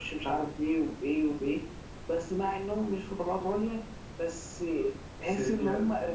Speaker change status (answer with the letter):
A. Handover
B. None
B